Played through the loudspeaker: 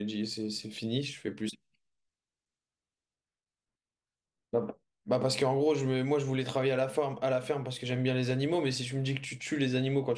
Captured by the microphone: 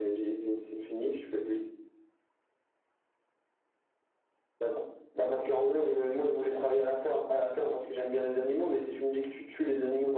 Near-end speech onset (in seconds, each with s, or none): none